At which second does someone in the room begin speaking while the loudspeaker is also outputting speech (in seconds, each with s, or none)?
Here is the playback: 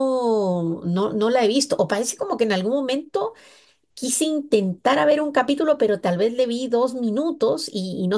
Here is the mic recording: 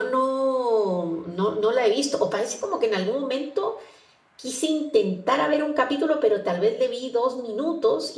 none